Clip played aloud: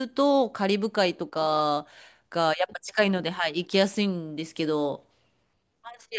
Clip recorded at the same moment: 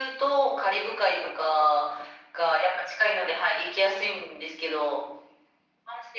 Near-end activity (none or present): none